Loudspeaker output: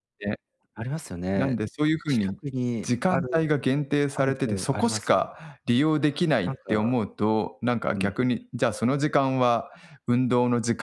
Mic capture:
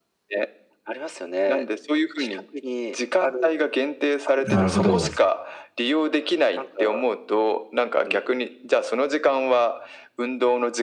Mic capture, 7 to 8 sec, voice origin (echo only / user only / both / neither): echo only